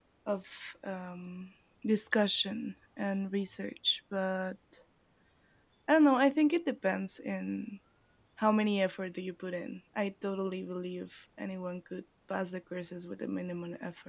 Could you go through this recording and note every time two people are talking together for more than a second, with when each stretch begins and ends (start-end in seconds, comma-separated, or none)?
none